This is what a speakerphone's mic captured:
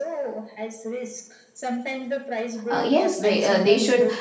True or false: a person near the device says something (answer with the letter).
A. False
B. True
B